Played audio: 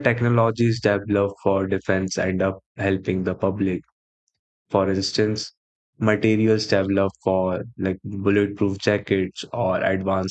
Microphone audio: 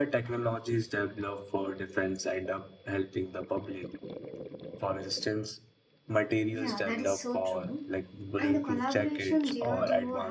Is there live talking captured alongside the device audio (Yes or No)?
Yes